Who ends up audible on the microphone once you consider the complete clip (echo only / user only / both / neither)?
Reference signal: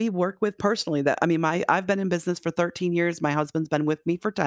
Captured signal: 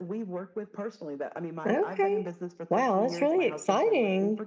both